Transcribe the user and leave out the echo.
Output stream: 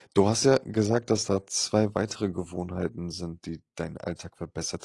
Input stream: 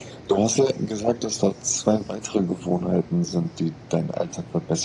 none

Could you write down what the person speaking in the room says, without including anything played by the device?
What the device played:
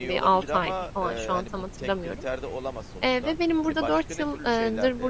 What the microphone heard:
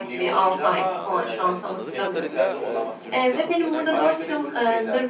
Anladım. Anladığım kadarıyla, eee, dürüstlüğe çok önem veriyorsun.

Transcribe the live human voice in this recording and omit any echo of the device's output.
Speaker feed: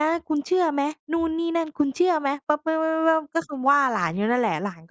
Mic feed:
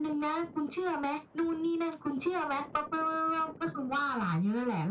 none

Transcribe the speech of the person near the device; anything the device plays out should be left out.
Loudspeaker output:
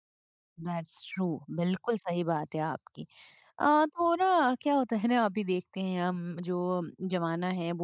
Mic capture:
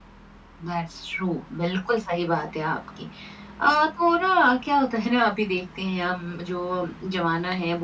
none

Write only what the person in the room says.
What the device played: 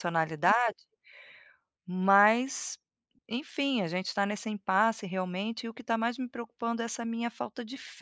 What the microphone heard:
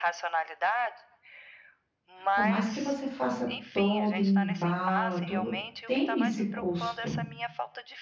por mais que você faça todo, embala, tudo, tem esse custo.

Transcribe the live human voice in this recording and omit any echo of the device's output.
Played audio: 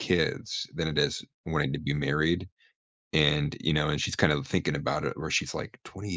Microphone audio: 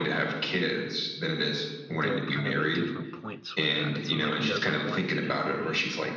they're kind of at different points with that. It sounds like he doesn't want to get married.

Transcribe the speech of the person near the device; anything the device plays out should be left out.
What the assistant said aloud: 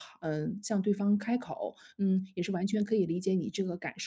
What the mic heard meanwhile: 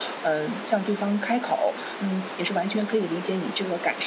none

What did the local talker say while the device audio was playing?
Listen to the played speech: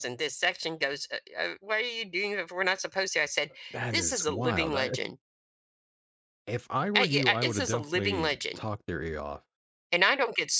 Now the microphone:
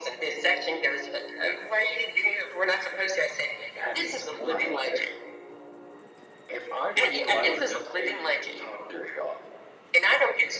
none

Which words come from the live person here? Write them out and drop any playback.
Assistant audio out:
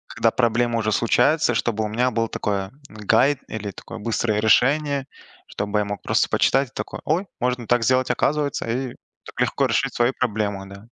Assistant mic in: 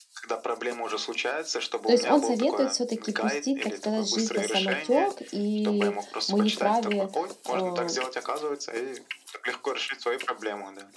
То есть он советует все-таки пустить, так сказать, жизнь на самотек, и мы не вправе а,

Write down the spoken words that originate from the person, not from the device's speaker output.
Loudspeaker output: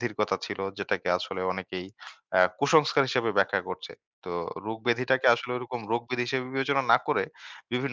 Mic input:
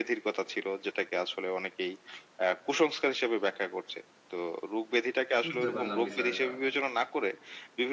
বুঝতে পারলাম বিষয়টা।

